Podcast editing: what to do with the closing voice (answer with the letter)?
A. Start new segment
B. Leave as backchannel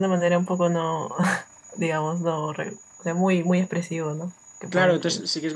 A